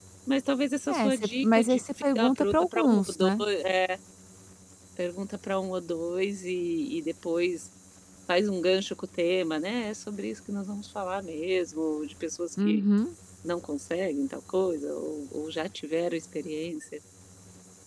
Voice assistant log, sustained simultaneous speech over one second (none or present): present